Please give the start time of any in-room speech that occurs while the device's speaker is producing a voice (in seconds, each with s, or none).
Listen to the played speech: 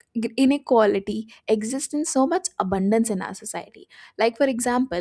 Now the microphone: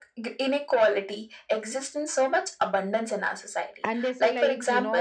3.8 s